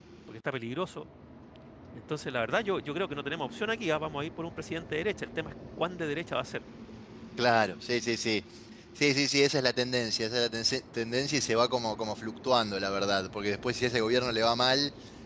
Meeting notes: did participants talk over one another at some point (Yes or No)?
No